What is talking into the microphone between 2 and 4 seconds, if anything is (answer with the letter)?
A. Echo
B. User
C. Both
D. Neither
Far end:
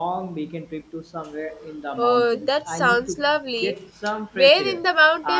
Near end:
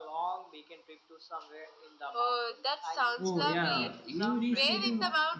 C